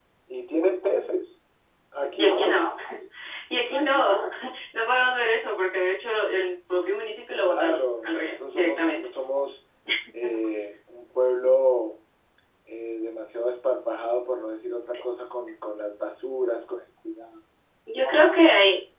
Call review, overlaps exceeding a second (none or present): present